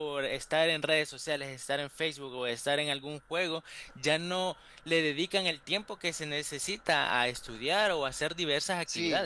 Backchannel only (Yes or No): No